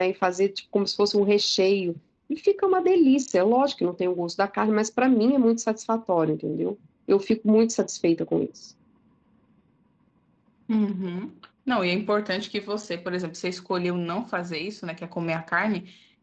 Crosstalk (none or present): none